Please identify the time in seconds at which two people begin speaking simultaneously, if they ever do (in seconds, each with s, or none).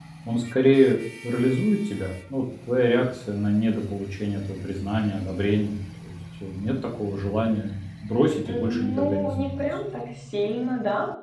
8.4 s